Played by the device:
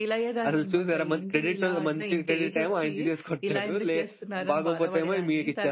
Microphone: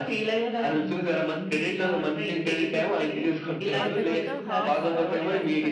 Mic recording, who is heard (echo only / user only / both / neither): both